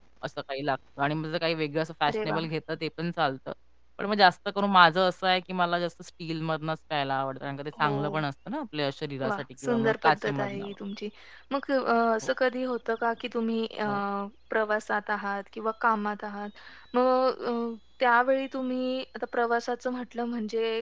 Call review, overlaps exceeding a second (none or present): present